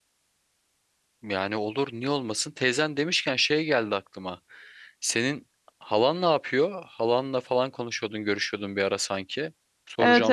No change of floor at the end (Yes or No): No